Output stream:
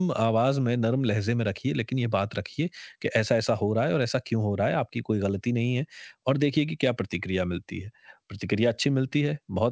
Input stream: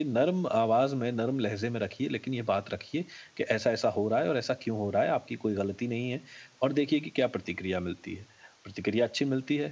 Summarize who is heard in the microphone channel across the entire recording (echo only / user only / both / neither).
echo only